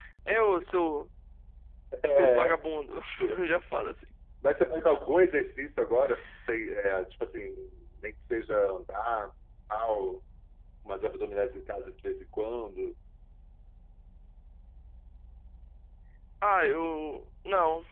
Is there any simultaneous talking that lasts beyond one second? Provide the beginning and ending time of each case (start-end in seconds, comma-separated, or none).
none